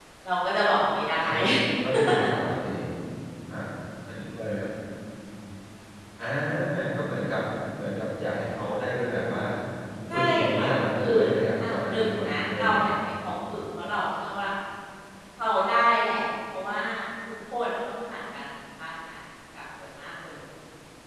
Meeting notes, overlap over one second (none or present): present